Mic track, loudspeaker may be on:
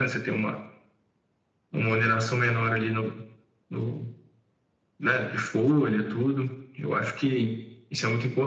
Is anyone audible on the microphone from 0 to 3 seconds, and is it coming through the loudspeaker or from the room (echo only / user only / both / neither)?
echo only